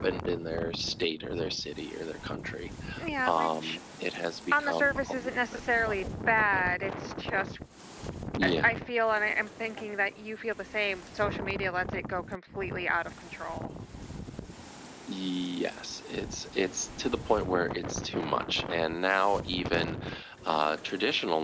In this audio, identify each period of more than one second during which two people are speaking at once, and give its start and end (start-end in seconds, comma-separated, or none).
4.5-6.0